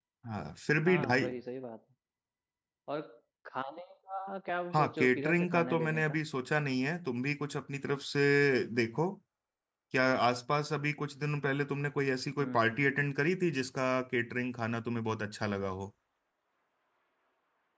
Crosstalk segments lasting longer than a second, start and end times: 4.7-6.2

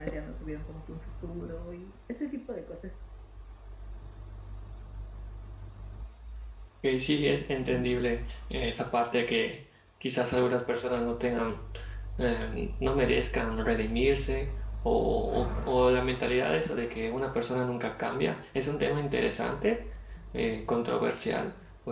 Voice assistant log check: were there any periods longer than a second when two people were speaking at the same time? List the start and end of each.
none

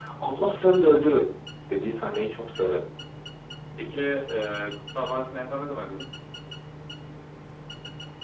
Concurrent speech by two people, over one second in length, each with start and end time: none

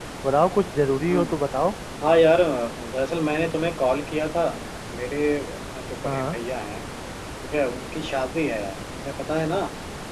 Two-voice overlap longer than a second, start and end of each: none

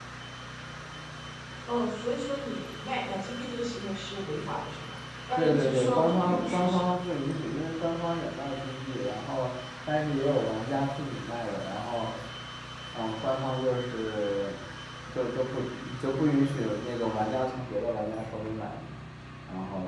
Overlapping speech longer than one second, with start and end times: 5.4-6.9

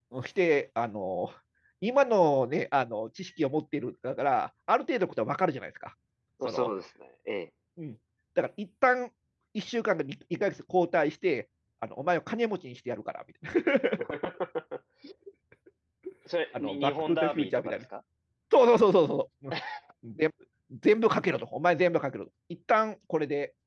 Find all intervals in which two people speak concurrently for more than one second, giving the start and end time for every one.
16.5-17.8

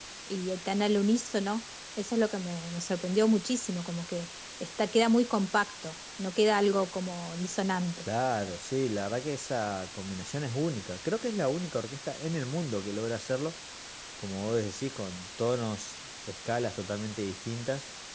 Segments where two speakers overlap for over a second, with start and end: none

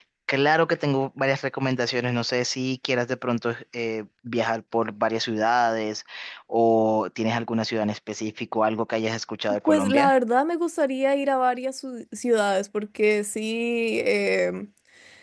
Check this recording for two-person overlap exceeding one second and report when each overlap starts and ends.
none

